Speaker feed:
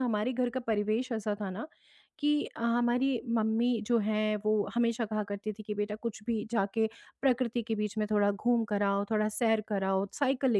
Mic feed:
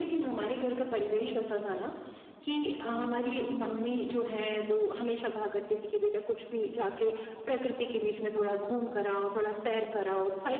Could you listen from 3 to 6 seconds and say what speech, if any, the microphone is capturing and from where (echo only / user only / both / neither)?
echo only